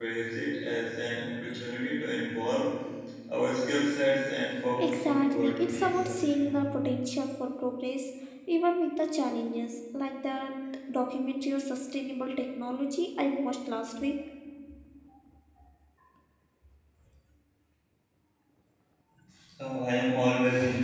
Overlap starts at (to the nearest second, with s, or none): 5 s